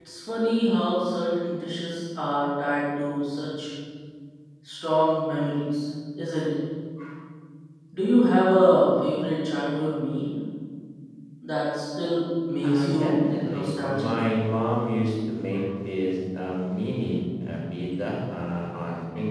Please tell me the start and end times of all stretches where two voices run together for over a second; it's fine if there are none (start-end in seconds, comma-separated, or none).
12.6-14.1